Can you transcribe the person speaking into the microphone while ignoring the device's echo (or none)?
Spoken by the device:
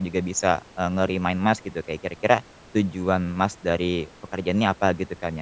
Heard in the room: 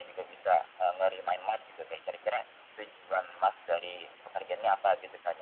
none